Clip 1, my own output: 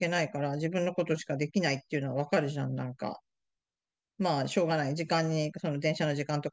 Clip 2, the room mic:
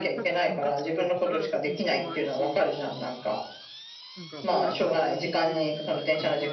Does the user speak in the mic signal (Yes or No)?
Yes